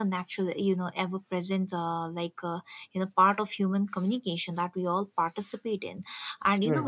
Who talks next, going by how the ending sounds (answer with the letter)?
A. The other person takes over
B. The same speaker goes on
B